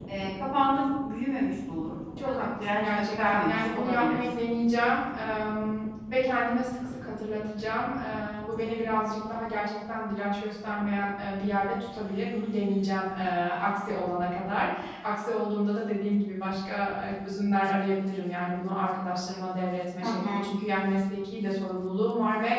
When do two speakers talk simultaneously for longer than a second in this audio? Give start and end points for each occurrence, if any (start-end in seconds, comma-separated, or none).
2.3-4.4